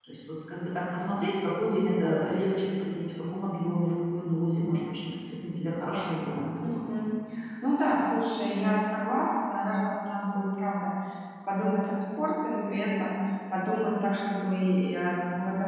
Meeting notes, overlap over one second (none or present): none